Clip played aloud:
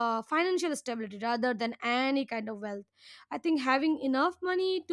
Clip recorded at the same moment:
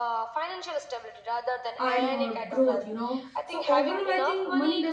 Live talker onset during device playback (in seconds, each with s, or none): 1.8 s